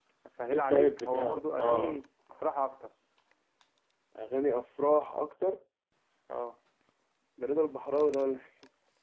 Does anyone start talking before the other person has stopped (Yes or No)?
Yes